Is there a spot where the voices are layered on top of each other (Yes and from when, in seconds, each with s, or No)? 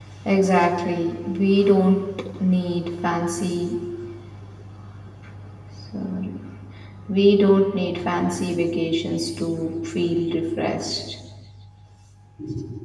No